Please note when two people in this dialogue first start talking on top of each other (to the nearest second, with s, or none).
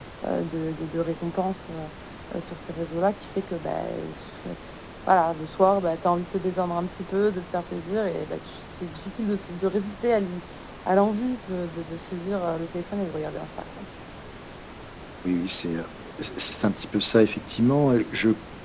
none